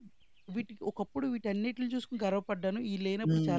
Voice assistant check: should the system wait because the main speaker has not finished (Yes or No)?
No